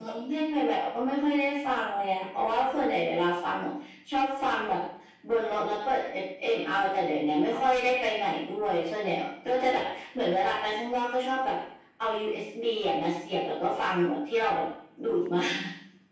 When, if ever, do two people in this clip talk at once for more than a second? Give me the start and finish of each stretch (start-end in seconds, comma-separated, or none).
none